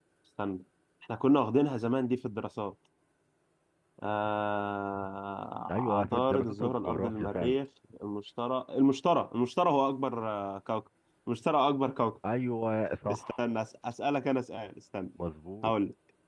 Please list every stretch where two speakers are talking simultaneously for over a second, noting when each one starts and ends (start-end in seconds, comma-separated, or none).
5.7-7.6